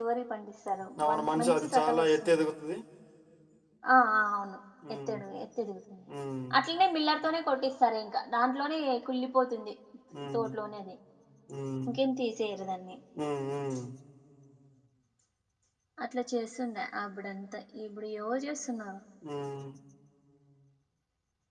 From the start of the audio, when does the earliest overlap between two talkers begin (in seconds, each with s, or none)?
1.0 s